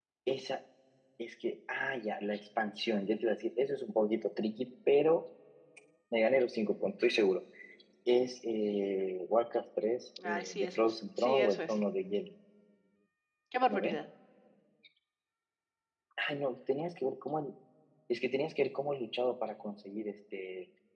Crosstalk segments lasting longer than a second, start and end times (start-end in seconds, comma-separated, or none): 10.2-11.7